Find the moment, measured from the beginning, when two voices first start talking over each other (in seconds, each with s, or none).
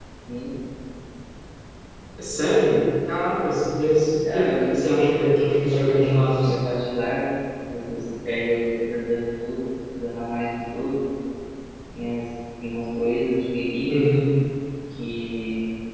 4.2 s